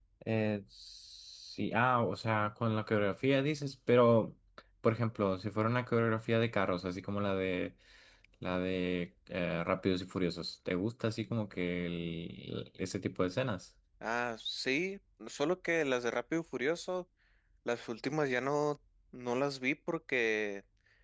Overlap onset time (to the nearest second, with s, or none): none